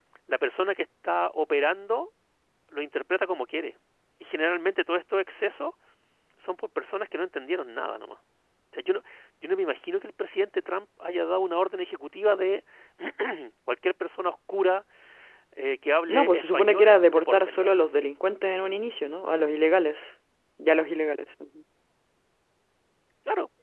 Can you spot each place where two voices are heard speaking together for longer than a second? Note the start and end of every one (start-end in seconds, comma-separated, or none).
16.1-17.7